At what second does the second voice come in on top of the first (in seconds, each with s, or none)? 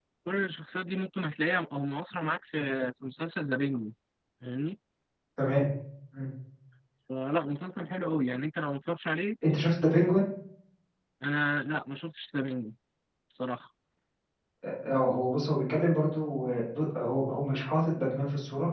none